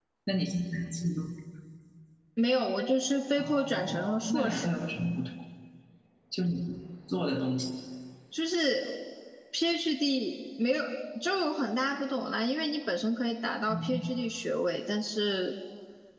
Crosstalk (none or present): present